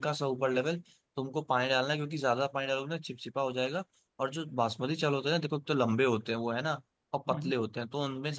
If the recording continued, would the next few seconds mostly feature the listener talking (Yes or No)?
No